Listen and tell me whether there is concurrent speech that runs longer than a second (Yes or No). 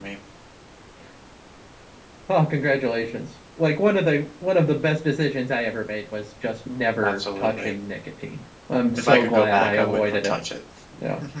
Yes